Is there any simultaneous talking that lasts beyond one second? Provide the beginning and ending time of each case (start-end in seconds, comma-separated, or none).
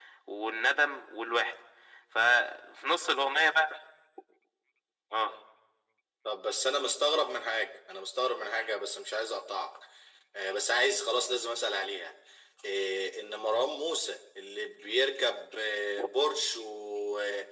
none